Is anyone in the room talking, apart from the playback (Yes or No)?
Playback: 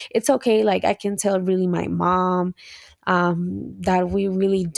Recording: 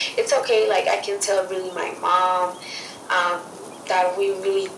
No